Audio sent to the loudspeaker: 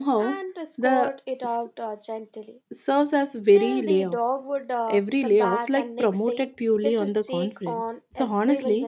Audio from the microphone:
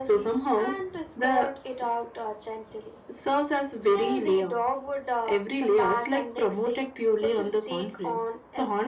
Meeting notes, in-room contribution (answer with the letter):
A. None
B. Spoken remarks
A